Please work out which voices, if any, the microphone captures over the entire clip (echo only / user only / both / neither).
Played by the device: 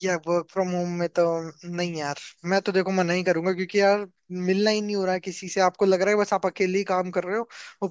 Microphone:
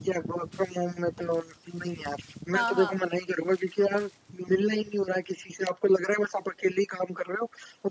both